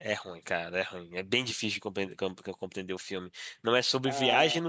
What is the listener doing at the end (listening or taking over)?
listening